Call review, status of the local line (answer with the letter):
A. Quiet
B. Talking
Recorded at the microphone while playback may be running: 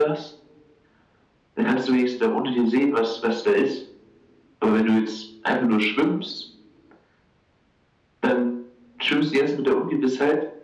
A